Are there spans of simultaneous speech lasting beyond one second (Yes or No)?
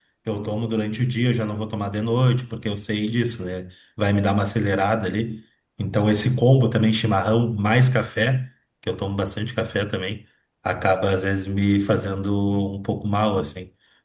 No